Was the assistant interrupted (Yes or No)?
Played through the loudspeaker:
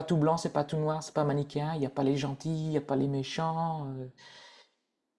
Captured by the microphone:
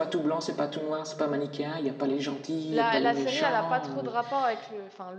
Yes